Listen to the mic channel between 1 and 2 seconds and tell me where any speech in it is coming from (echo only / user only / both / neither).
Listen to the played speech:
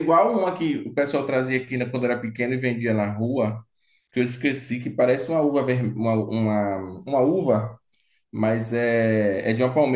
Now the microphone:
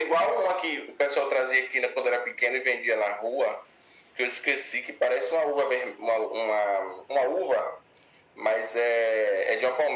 echo only